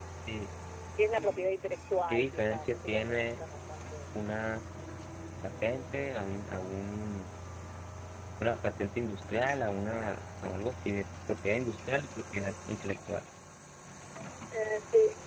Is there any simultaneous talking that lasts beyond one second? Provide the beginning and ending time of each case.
2.1-3.4

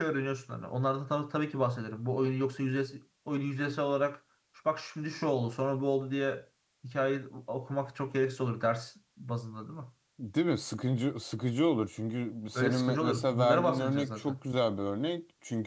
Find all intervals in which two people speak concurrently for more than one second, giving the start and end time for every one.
12.5-14.4

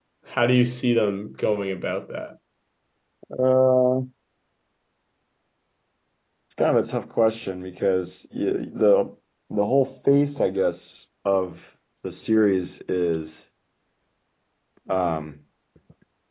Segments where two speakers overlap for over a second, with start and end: none

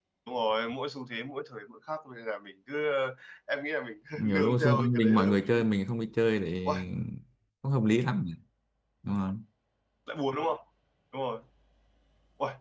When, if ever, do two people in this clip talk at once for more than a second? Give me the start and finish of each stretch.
4.2-5.5

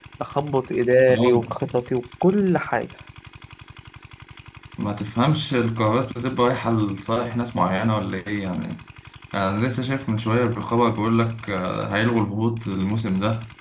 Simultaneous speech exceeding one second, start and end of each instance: none

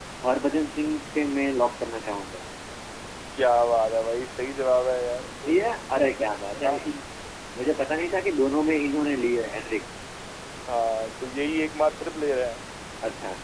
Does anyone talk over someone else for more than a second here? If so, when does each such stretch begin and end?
none

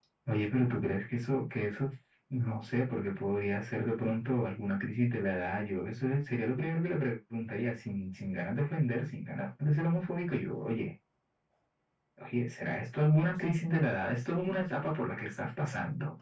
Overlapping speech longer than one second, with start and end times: none

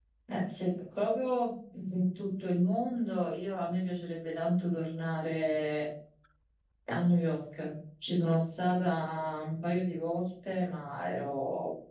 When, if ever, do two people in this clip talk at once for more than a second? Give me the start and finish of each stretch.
none

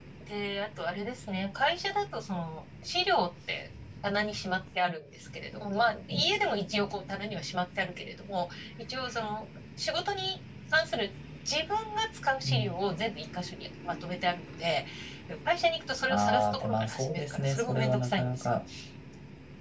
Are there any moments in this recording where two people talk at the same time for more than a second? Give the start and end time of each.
16.1-18.5

